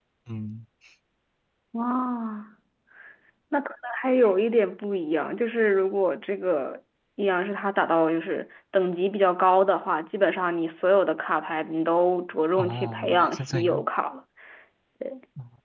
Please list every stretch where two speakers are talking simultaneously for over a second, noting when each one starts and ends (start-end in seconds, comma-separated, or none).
12.6-13.8